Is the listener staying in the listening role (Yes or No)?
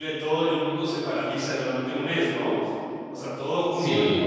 No